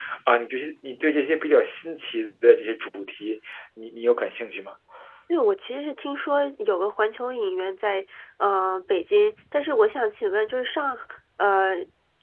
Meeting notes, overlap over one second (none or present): none